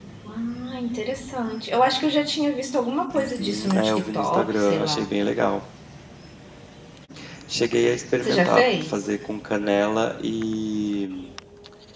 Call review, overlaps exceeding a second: present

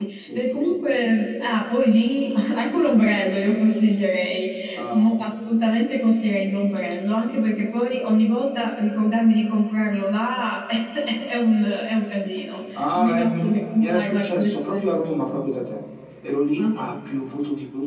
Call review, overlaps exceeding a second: present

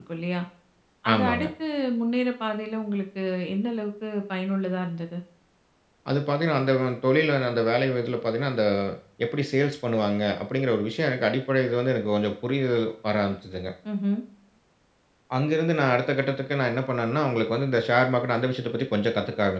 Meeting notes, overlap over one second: none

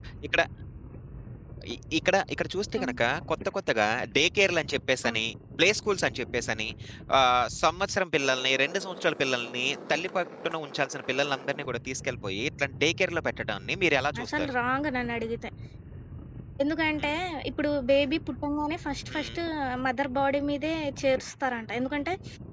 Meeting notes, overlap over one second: none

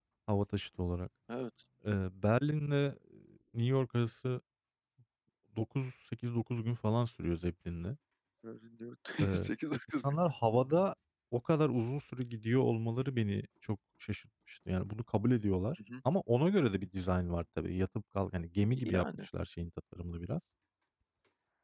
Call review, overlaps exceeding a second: none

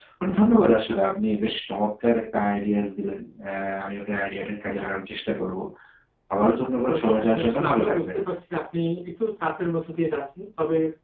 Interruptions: present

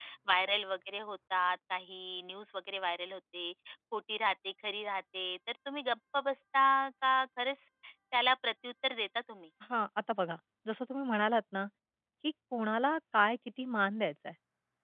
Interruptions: none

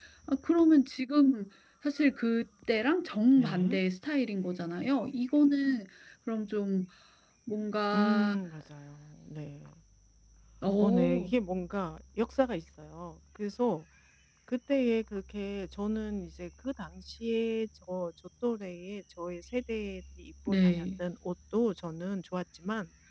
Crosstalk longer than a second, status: none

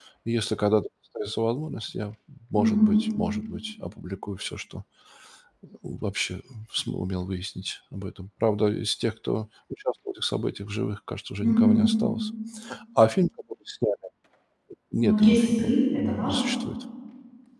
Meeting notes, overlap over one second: present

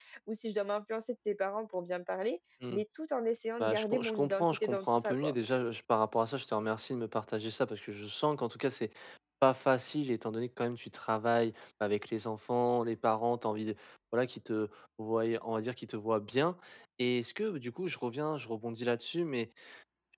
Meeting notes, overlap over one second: present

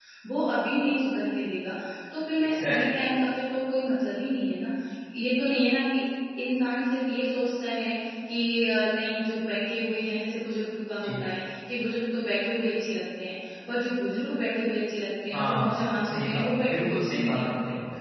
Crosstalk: present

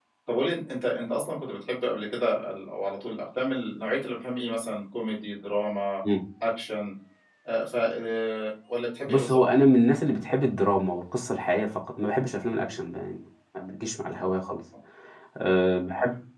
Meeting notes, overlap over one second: none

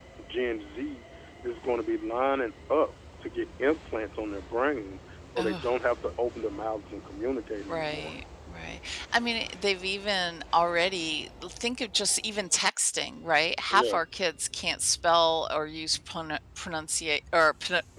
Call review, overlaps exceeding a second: none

